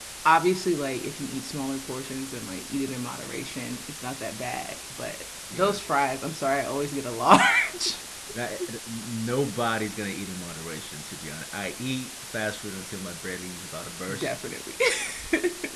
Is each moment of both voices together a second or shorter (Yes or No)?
Yes